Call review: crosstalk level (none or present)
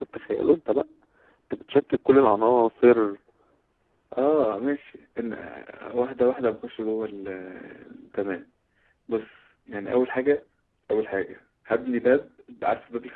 none